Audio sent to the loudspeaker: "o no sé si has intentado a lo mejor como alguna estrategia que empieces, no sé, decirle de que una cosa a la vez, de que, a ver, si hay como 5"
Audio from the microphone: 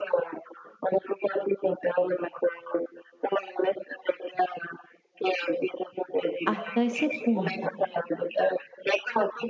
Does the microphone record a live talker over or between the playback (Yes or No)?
Yes